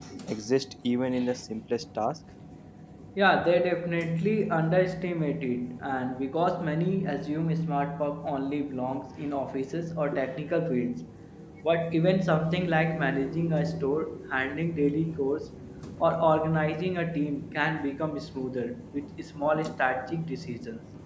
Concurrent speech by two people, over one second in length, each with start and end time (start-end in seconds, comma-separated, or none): none